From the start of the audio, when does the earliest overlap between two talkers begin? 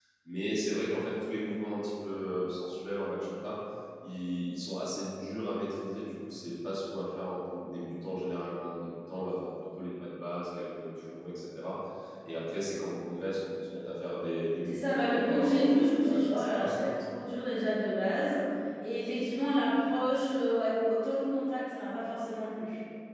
15 s

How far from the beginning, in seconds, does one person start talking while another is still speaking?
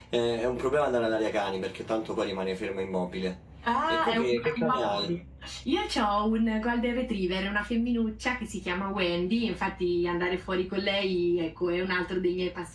4 s

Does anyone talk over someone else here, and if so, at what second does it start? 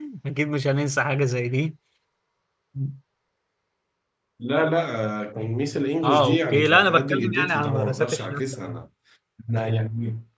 6 s

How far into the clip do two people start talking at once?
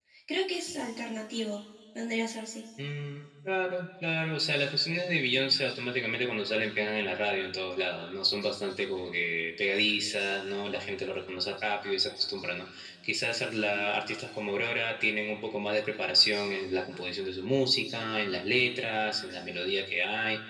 none

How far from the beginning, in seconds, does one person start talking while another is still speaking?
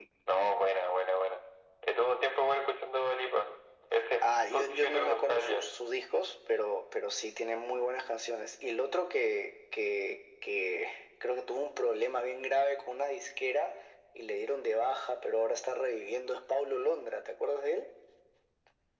4 s

